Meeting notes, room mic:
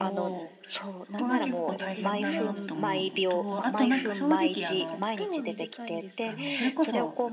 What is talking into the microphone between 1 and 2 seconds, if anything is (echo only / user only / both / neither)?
both